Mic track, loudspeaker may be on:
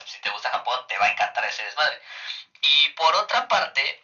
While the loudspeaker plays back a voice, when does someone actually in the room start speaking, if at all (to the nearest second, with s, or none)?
none